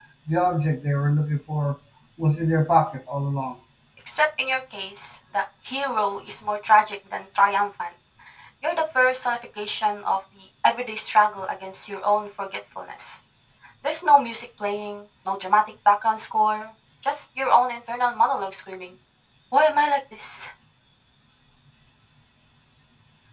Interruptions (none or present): none